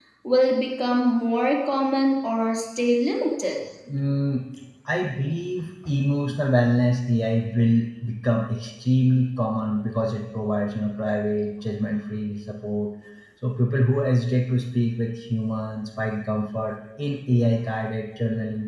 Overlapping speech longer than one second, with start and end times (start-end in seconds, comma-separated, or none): none